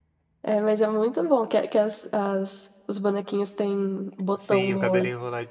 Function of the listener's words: taking over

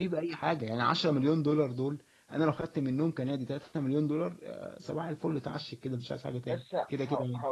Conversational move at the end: taking over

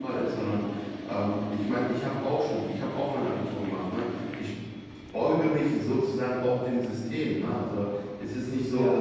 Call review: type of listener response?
listening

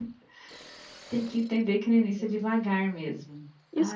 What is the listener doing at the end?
taking over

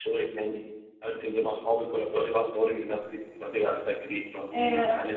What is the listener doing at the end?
listening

